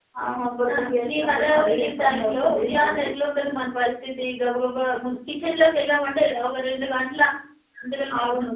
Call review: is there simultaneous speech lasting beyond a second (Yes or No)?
Yes